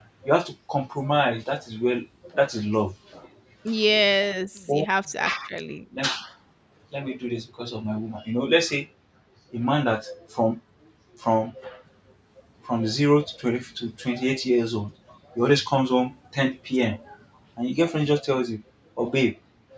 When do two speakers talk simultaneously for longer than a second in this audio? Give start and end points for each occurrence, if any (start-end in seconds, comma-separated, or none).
none